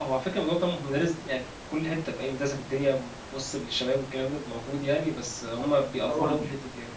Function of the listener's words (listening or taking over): taking over